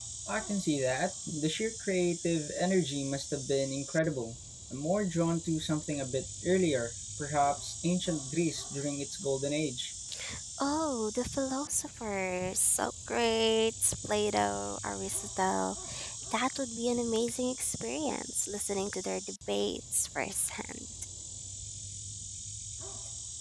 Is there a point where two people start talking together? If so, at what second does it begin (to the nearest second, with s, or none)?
none